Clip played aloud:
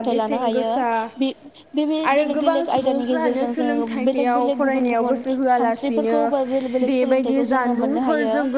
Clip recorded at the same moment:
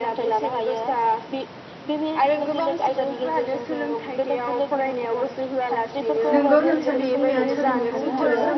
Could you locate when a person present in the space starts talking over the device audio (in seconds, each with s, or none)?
6.3 s